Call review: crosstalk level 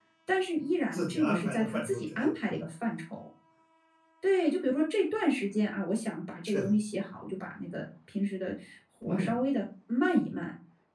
present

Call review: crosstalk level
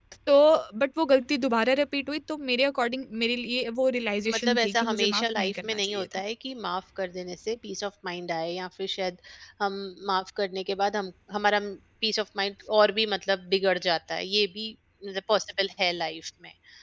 present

